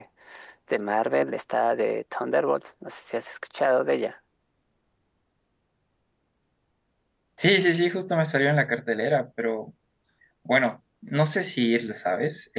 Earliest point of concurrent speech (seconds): none

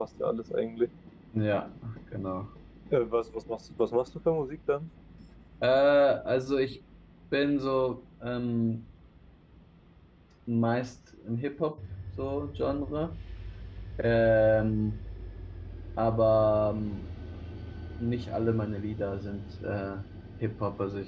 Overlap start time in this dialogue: none

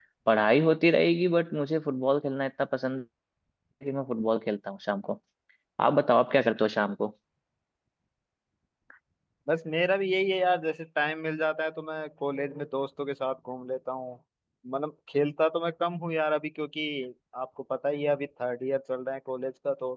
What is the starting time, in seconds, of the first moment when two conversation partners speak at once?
none

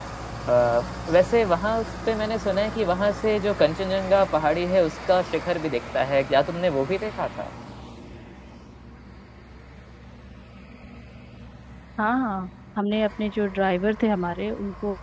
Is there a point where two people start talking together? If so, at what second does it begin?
none

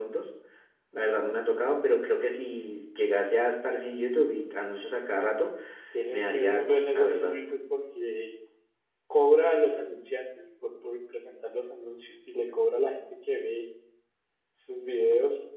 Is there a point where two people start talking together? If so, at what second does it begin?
6.1 s

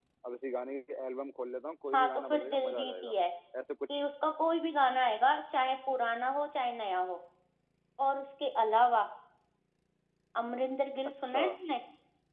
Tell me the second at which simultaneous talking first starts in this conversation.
1.9 s

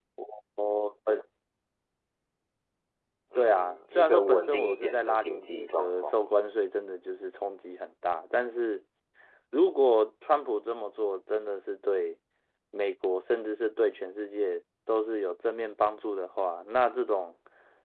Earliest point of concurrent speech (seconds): 3.4 s

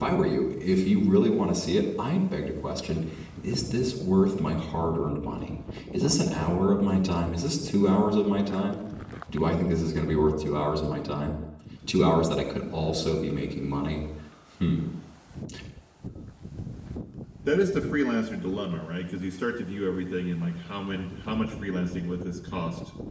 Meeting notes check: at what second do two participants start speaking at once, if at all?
none

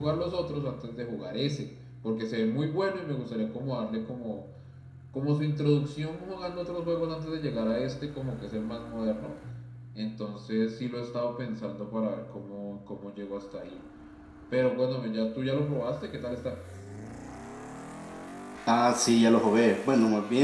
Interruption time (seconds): none

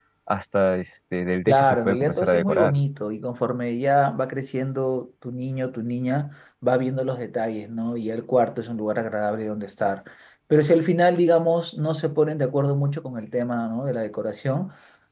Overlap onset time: 1.5 s

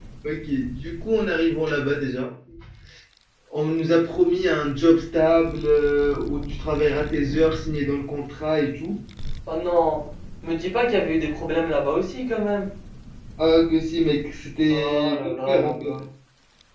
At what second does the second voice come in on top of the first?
14.7 s

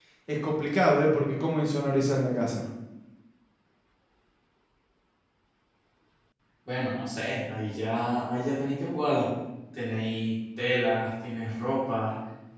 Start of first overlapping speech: none

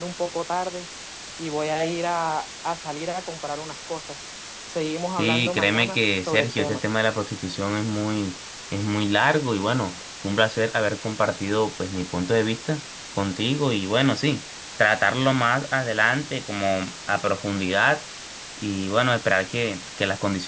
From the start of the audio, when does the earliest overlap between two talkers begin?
5.2 s

